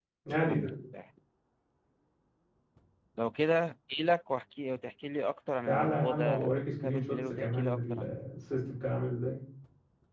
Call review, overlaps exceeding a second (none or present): present